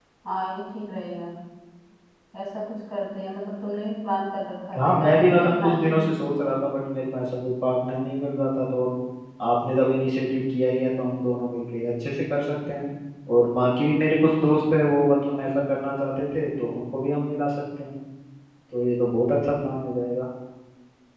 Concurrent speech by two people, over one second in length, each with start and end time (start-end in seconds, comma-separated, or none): 4.8-6.2